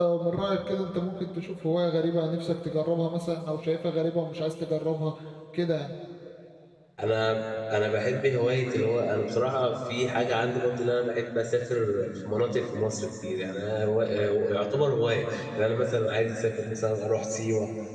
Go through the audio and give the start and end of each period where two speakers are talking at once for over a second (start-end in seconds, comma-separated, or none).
none